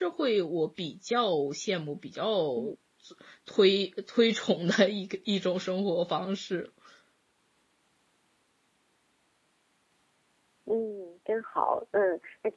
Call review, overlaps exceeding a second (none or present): none